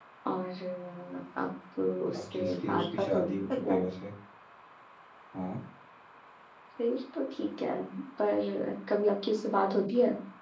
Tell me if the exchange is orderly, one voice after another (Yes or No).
No